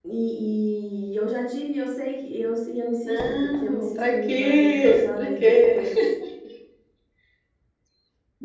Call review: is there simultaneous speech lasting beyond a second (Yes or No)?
Yes